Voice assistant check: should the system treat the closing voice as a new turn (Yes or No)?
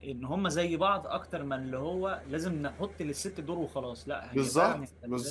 Yes